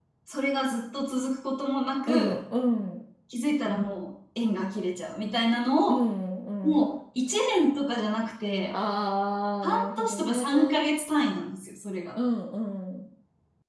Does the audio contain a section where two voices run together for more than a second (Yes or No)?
Yes